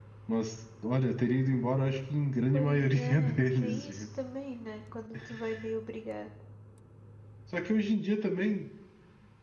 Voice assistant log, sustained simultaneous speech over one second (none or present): present